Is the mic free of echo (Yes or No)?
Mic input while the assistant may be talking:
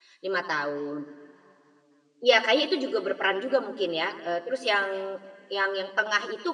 Yes